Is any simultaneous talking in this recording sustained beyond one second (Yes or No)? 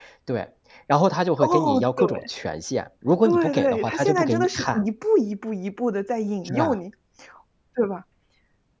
Yes